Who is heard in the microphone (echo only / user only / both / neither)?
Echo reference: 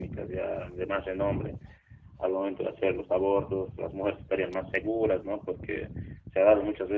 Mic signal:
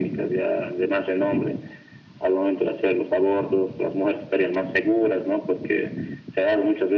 echo only